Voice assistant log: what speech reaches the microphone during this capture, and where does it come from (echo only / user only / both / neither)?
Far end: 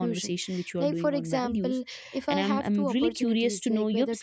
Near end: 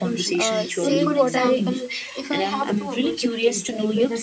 both